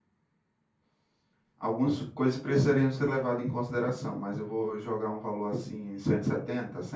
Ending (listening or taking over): taking over